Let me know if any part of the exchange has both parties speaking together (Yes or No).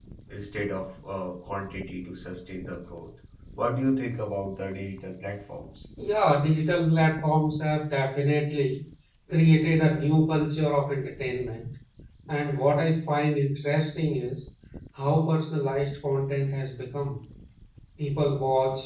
No